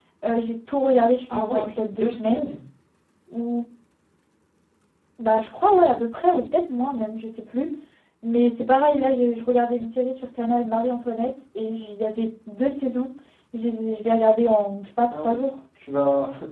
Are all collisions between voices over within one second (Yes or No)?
No